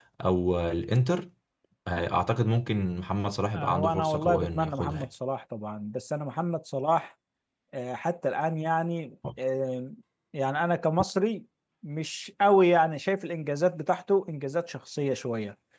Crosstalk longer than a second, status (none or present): present